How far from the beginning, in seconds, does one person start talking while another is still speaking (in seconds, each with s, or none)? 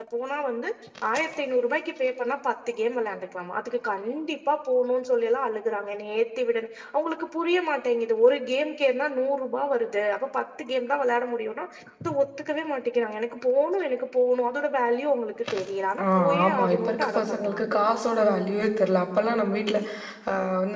16.1 s